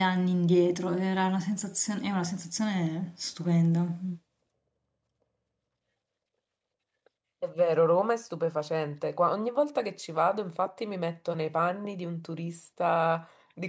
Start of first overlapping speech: none

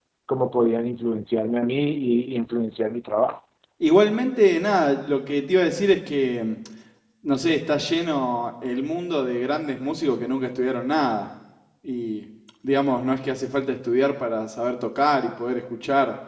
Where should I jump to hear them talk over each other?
none

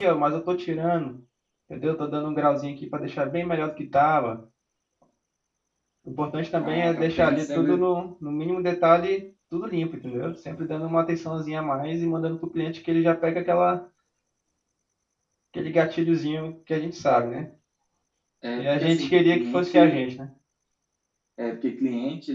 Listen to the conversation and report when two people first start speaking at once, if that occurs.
6.6 s

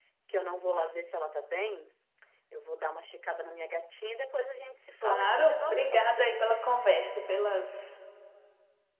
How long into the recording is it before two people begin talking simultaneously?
5.0 s

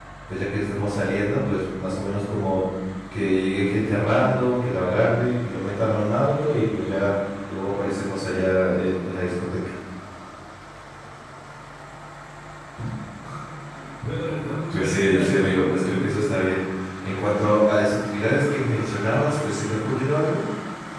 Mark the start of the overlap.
14.7 s

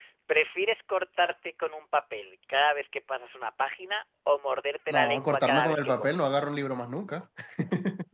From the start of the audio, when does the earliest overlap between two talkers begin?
4.9 s

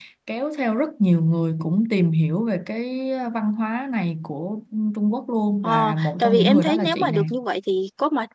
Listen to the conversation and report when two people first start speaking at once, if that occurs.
5.6 s

